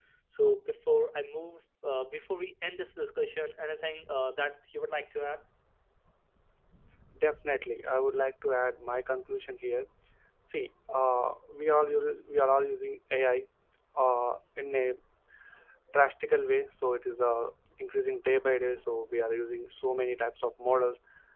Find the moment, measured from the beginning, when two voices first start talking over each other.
none

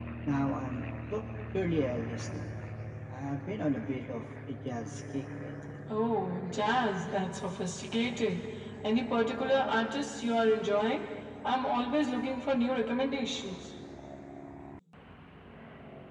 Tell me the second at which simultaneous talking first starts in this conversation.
none

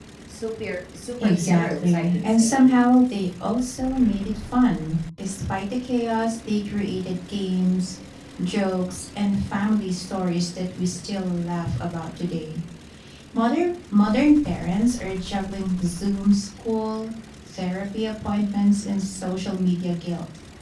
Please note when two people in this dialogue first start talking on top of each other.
1.2 s

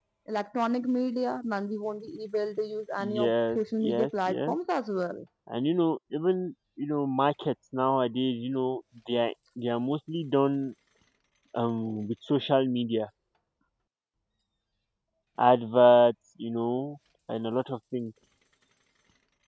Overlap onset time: 3.0 s

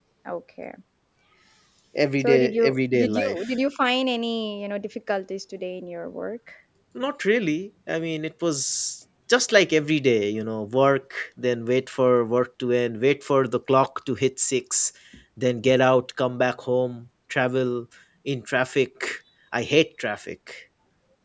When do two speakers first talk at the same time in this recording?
2.2 s

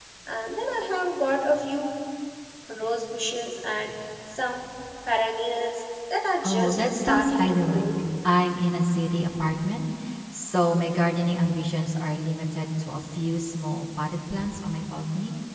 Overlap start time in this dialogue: 6.4 s

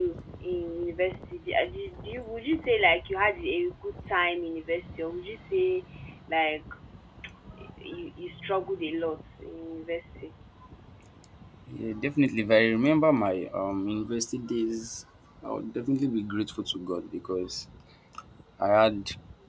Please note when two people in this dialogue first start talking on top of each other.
none

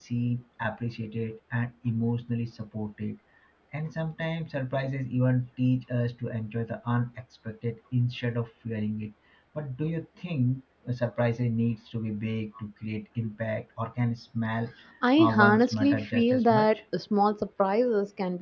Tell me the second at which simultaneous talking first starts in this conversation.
15.2 s

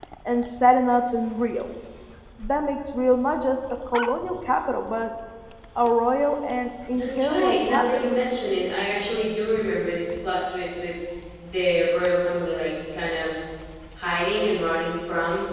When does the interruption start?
6.9 s

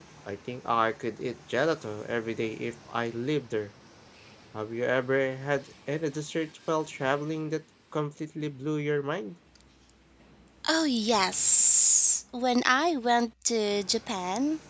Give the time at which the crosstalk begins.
none

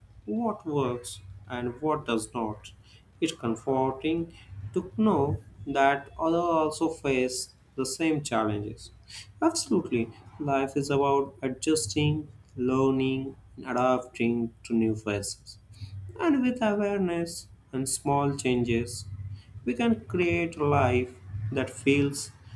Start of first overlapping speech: none

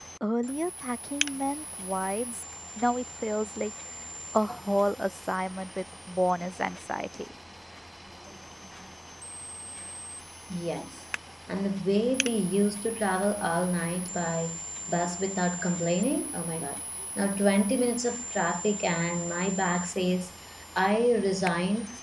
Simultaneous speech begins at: none

